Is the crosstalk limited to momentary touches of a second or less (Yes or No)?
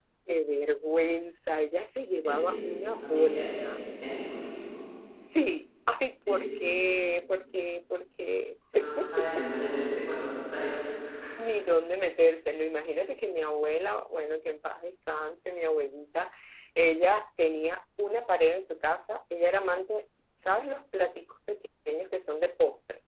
No